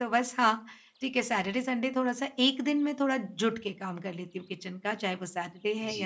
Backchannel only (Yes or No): No